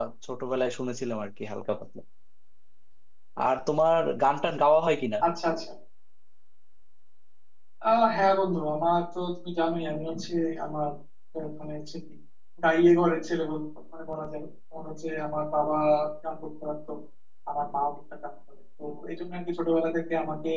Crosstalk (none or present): none